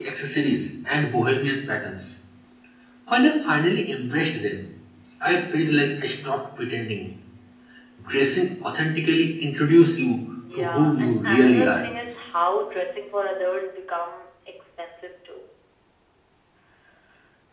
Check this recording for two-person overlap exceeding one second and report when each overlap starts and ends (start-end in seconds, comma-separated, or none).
10.5-11.8